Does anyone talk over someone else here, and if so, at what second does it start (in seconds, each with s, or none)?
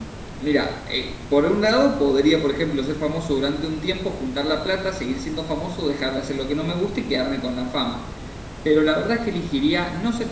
none